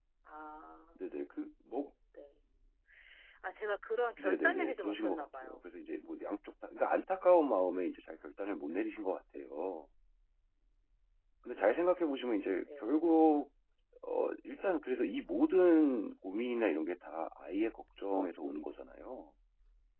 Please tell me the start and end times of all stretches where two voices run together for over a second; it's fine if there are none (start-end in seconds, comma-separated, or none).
4.2-5.7